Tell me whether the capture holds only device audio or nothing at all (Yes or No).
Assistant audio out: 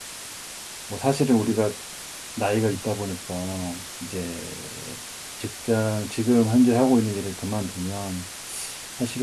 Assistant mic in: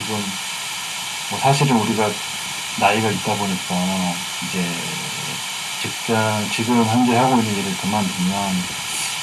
Yes